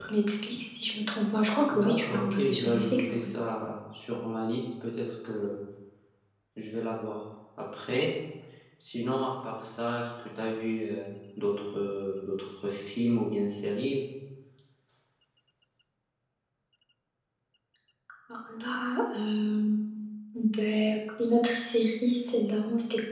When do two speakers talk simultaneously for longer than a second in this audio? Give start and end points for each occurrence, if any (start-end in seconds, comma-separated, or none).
1.7-3.3